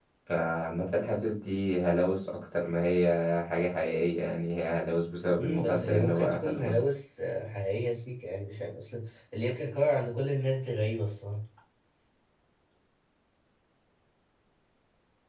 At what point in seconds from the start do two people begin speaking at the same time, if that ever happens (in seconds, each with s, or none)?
5.4 s